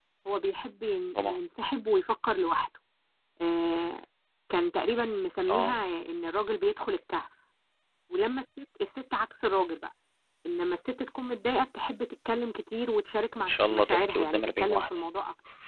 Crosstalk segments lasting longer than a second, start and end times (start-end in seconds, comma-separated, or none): 13.3-15.0